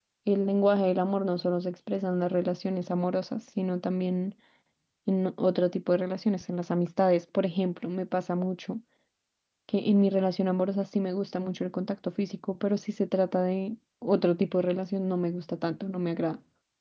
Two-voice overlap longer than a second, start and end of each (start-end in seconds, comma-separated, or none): none